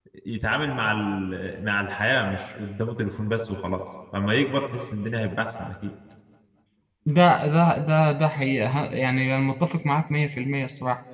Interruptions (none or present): none